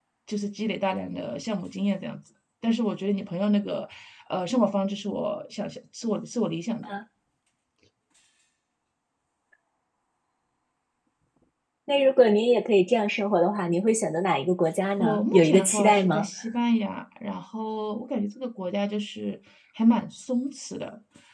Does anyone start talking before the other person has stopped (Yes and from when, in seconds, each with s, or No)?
Yes, from 15.0 s